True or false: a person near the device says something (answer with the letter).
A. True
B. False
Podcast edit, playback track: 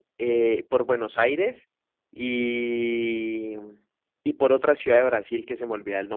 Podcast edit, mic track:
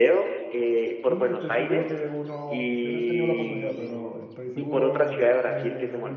A